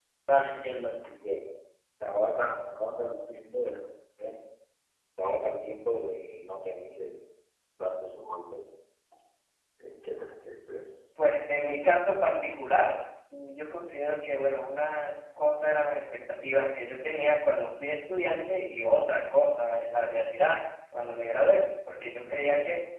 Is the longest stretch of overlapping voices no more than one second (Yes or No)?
Yes